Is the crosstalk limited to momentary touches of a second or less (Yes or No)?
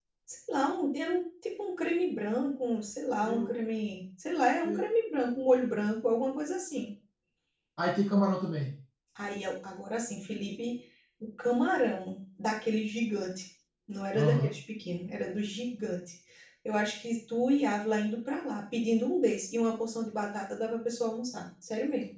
Yes